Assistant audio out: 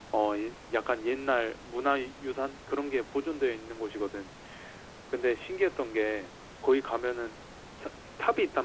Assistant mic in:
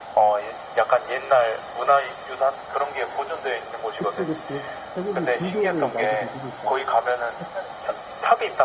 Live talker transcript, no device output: 그치, 그치. 태국이 불교를 많이 믿으니까. 사찰이고.

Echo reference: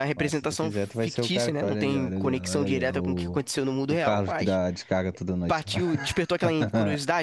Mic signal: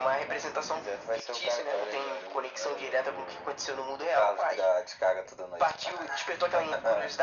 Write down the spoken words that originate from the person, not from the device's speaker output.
none

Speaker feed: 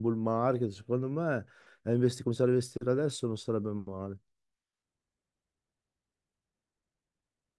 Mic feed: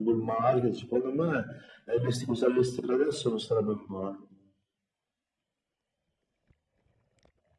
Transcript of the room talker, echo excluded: none

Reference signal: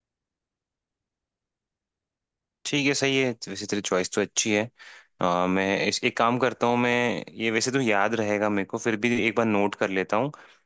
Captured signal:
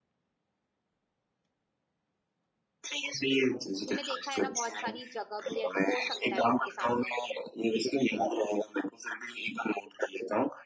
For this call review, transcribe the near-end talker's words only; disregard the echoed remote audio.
तूने देखा है ना बहुत सारी जगह भी है तो हो सकता है घर के सामने

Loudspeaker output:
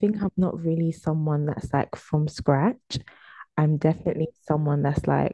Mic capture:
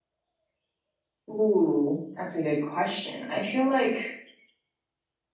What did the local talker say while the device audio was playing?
Ooh, that's a good question. I feel like

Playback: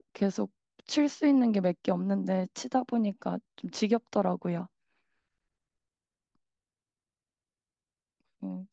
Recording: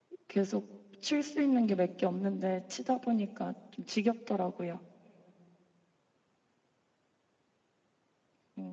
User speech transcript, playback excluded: none

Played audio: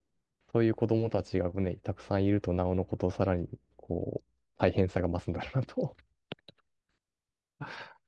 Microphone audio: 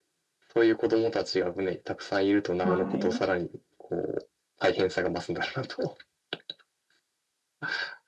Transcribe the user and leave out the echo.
はい。

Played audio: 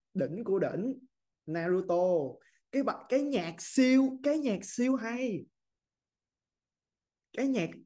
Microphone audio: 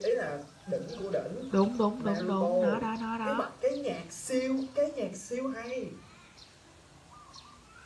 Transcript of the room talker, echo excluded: đúng đúng đúng đúng nó đó nó đó

